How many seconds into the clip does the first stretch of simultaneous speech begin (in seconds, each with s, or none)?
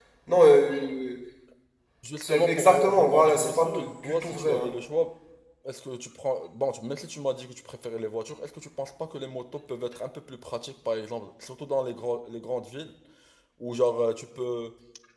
2.2 s